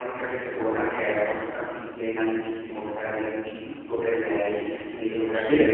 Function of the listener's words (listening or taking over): listening